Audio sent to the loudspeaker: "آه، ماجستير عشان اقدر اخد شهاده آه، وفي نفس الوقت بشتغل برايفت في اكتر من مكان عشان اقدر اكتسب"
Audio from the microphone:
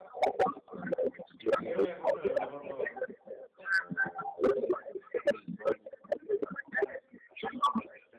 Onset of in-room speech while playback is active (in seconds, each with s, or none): 1.6 s